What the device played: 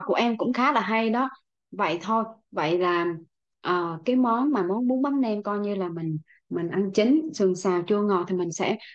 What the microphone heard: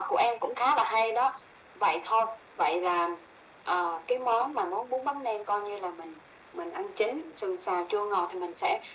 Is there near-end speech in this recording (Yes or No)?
No